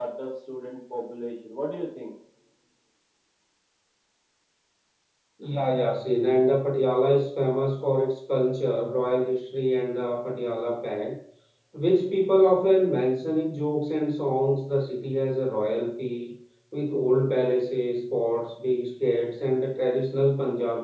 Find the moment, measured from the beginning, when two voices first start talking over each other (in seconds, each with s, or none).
none